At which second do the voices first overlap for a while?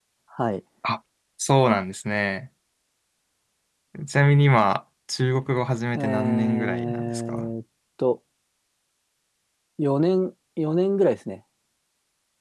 6 s

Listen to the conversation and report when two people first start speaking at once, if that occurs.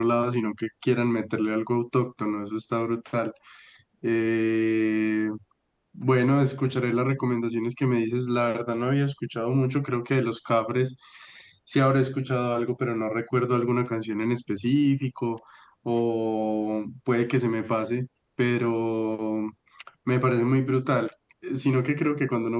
none

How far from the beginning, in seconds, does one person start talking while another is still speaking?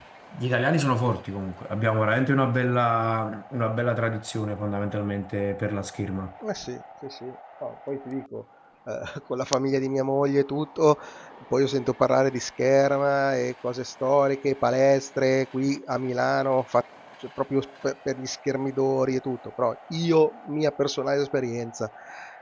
none

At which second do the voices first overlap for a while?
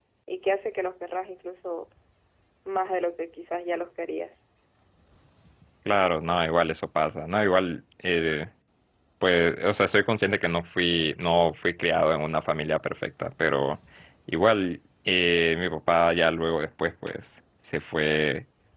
none

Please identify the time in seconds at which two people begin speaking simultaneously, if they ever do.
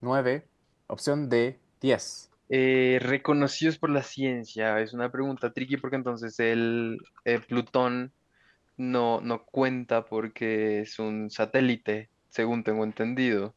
none

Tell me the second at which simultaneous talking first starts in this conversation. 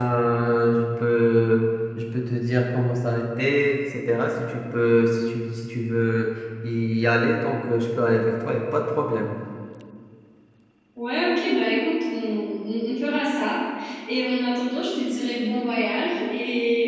none

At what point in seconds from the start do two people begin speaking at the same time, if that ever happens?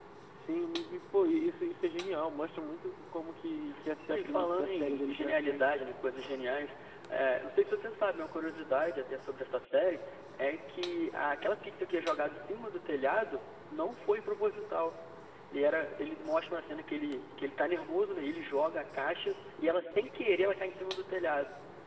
4 s

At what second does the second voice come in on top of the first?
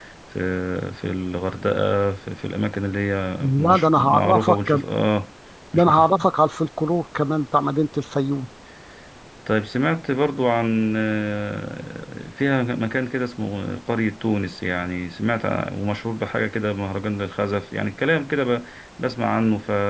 3 s

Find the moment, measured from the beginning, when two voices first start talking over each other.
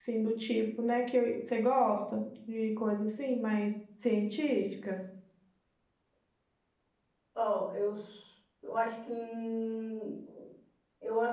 none

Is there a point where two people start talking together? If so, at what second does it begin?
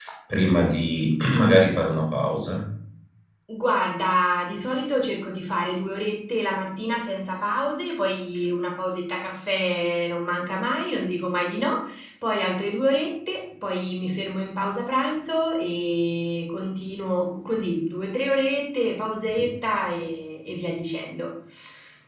none

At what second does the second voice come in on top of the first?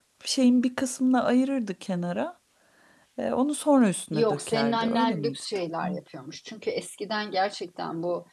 4 s

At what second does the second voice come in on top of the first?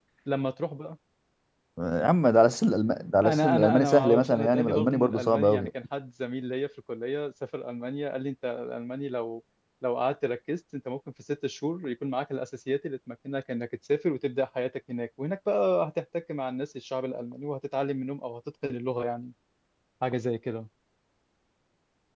3 s

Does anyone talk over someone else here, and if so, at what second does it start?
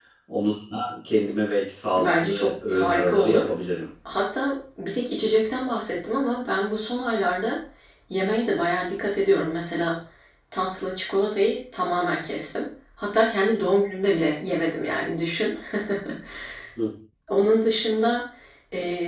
2 s

